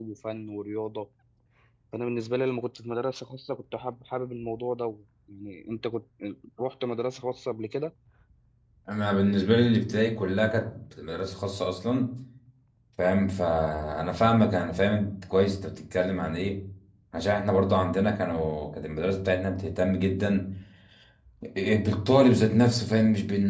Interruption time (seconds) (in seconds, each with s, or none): none